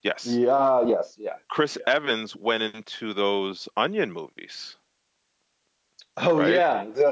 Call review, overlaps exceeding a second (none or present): none